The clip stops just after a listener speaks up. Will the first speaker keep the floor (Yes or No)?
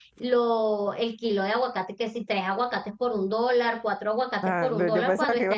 No